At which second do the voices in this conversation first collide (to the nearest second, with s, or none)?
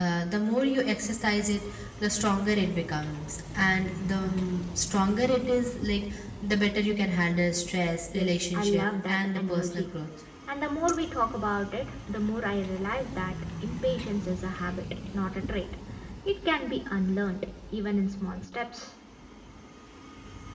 8 s